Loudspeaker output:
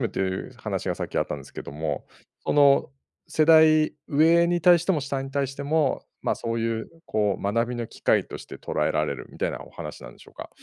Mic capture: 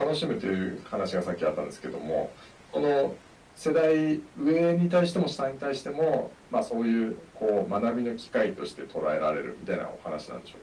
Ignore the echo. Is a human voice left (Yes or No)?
No